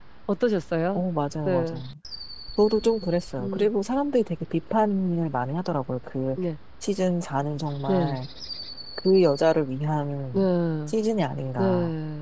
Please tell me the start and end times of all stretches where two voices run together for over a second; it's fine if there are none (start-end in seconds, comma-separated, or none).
none